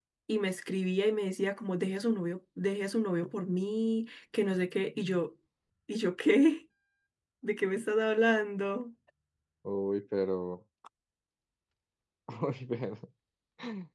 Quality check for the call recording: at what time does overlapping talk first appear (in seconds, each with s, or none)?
none